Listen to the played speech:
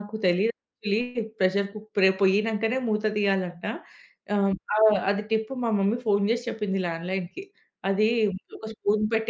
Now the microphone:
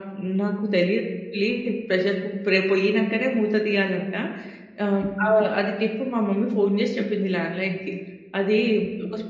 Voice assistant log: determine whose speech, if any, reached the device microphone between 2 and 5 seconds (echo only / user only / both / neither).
echo only